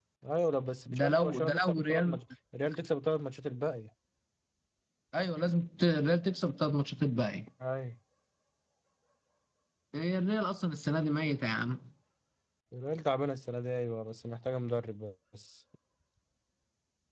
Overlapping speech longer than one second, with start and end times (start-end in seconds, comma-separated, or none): 1.0-2.2